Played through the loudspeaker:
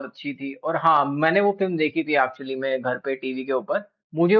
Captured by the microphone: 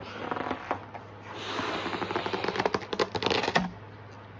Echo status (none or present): none